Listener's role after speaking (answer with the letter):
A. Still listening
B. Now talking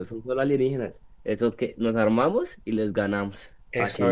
B